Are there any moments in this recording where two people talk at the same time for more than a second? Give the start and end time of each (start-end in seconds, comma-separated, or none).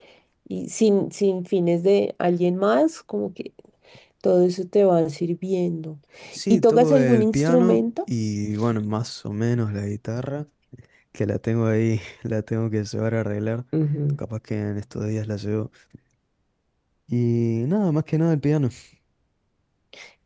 6.5-7.9